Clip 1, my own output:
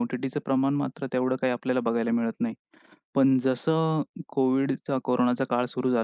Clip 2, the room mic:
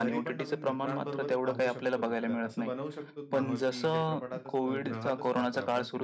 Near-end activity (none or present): present